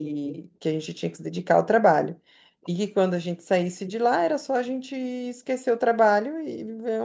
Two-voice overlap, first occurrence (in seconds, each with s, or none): none